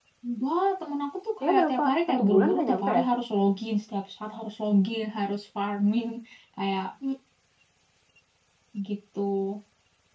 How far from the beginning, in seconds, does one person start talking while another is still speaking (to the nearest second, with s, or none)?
1 s